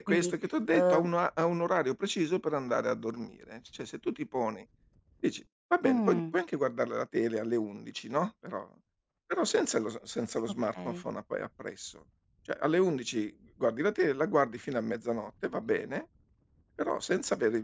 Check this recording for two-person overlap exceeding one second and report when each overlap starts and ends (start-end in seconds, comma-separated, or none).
none